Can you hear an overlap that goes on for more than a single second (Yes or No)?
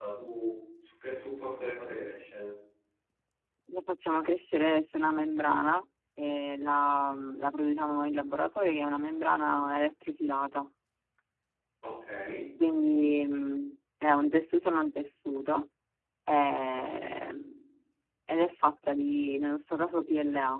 No